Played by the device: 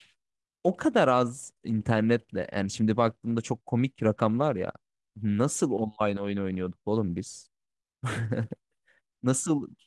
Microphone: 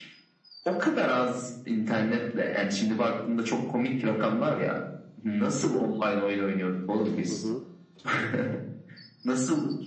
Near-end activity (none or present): present